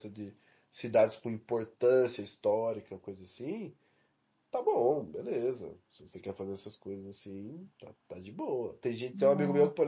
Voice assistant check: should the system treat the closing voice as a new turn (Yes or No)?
No